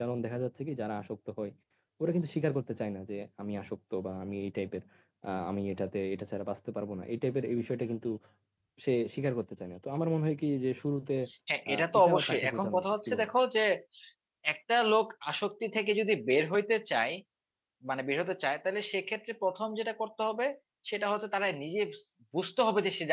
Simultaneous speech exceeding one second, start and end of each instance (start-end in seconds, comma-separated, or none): 11.7-13.3